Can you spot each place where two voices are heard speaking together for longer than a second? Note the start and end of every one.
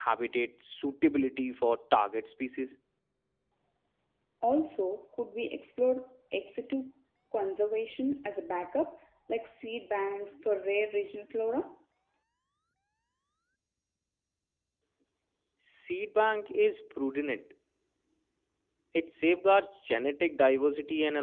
none

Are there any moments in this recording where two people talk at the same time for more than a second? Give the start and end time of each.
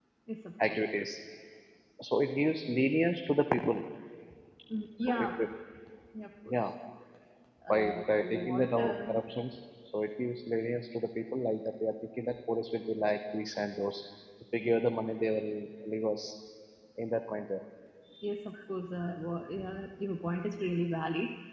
7.7-8.9

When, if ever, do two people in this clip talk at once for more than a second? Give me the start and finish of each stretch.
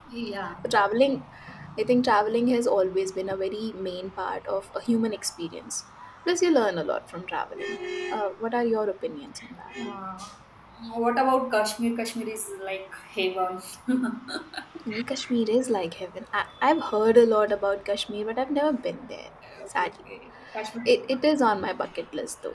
none

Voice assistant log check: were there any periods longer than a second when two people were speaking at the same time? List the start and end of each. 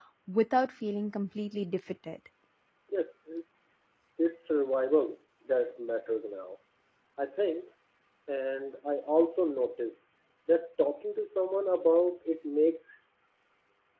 none

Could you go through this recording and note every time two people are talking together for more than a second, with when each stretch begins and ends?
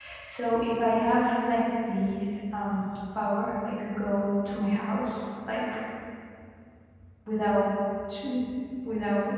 none

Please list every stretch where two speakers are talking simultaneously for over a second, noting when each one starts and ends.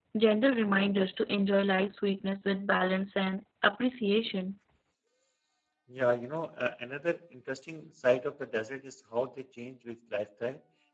none

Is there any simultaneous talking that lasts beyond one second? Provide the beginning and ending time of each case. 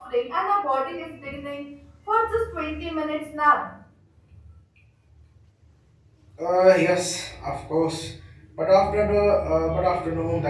none

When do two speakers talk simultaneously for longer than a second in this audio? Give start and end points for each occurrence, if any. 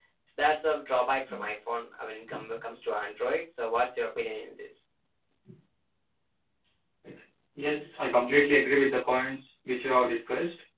none

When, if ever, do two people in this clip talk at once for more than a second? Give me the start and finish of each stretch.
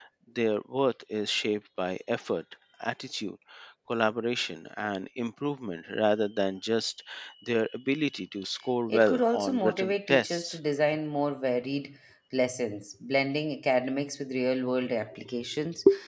8.9-10.6

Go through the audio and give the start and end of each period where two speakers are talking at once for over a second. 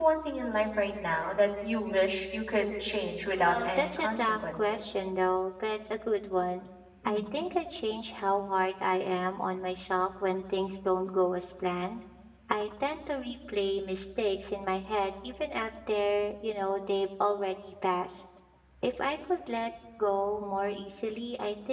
3.4-4.8

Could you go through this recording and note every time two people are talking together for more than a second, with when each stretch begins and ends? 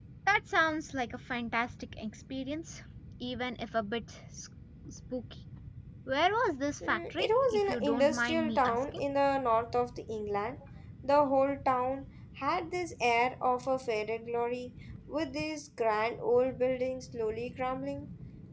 6.9-9.0

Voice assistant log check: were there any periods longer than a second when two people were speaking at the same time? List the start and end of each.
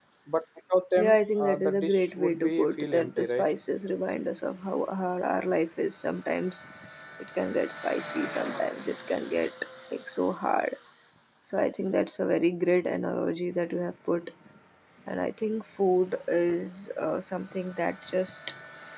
0.9-3.5

